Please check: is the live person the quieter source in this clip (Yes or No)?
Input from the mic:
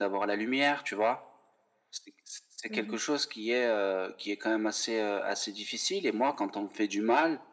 Yes